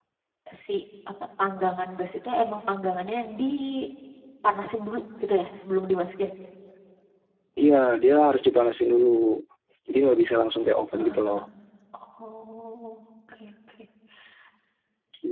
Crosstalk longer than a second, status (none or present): none